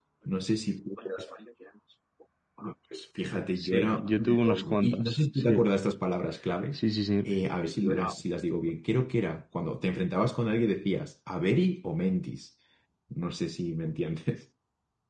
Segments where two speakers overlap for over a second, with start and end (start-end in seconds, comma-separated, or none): 3.6-5.5